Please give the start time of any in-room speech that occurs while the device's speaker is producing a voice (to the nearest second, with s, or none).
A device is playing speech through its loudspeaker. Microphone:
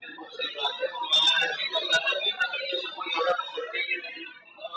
none